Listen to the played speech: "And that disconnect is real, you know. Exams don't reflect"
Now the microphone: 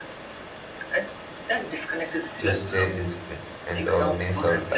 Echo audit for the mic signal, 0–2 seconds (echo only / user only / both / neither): echo only